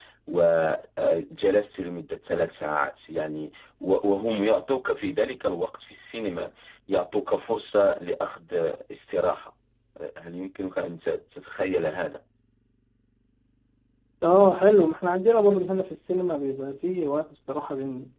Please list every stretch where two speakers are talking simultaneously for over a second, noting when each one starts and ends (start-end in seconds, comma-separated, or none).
none